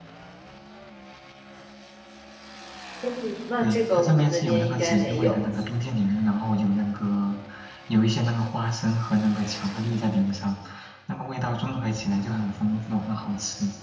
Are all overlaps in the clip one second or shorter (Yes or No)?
No